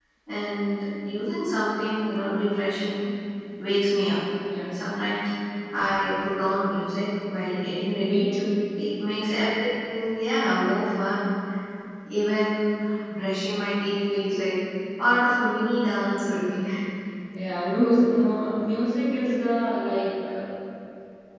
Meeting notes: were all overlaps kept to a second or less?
Yes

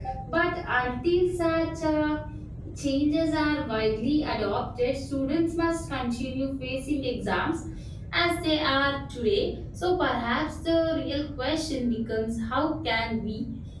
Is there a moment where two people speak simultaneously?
No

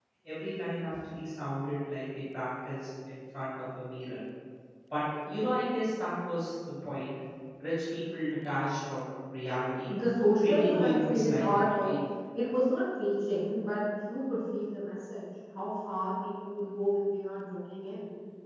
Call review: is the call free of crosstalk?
No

